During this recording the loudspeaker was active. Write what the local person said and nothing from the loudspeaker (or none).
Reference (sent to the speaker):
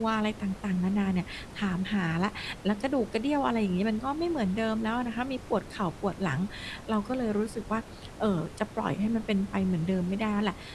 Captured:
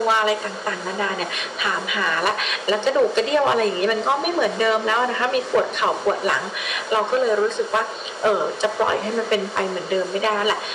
none